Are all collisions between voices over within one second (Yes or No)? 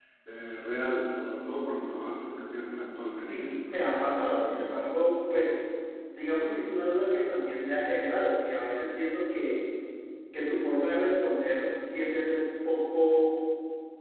Yes